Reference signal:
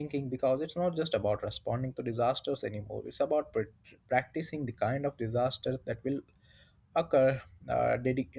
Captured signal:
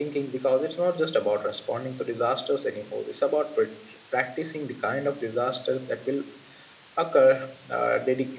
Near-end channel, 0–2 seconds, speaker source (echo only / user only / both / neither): echo only